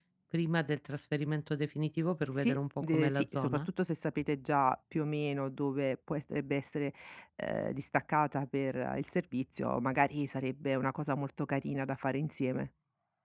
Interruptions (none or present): present